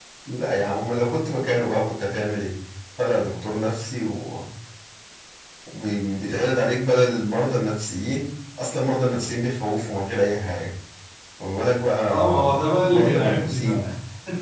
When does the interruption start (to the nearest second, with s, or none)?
12 s